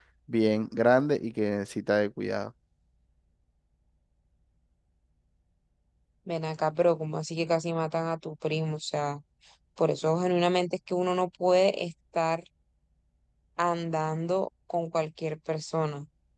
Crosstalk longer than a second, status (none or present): none